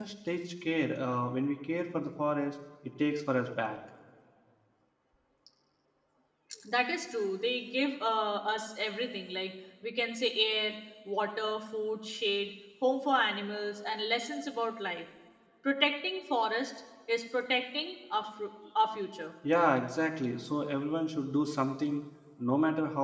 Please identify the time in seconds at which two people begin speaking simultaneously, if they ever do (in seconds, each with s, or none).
none